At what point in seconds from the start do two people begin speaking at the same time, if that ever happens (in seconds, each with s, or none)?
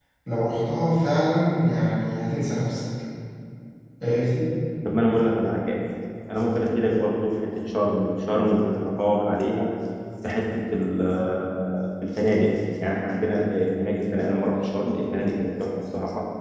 none